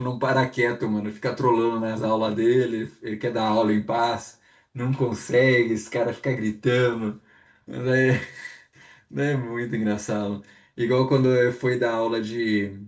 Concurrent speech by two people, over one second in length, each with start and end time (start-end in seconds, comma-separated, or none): none